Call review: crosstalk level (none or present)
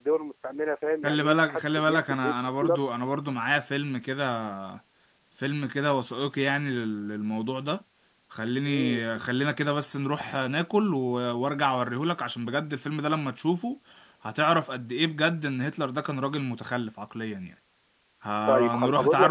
present